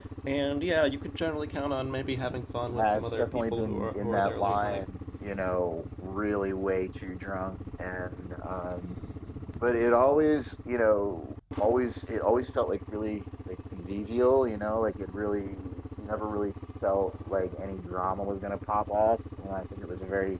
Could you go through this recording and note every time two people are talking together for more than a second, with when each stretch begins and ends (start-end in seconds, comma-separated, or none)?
2.7-4.8